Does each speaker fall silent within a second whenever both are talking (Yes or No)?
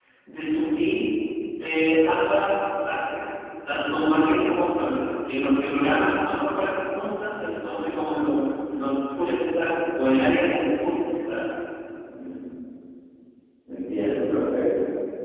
Yes